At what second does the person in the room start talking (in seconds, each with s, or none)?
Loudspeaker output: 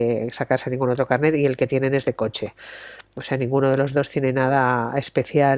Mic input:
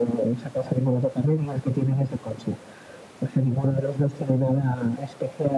none